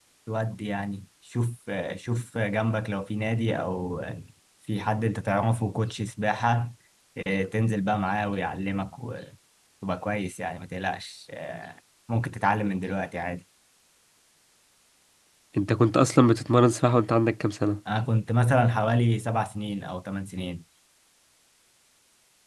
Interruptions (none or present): none